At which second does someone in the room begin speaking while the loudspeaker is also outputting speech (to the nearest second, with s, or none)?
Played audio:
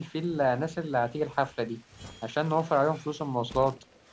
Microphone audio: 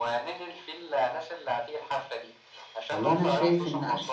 3 s